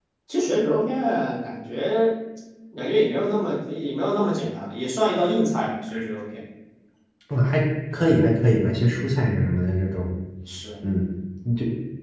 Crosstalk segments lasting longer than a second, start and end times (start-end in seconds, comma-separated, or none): none